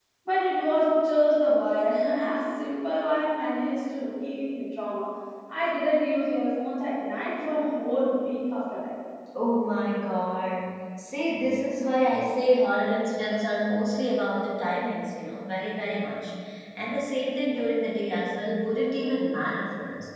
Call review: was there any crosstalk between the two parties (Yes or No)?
No